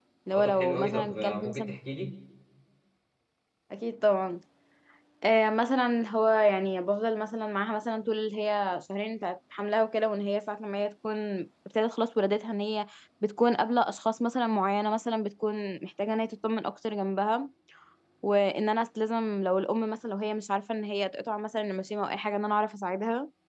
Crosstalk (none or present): present